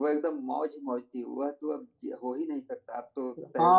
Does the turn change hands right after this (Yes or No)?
Yes